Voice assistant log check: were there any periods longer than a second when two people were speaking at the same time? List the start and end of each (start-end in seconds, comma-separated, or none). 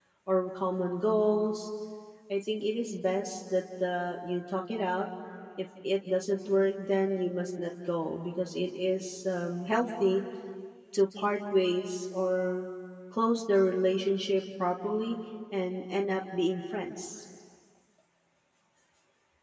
none